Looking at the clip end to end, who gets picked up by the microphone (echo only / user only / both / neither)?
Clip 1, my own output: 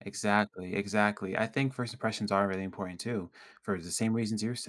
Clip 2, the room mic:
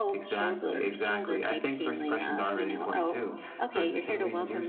both